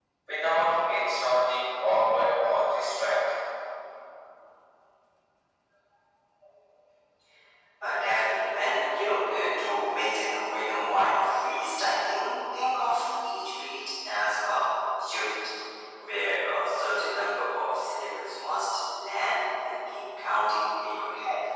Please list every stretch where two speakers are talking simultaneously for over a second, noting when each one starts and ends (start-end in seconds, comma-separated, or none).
none